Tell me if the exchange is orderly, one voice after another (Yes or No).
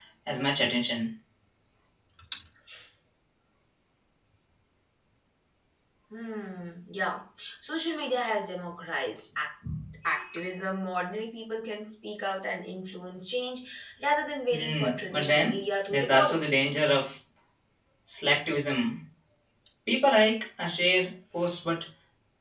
No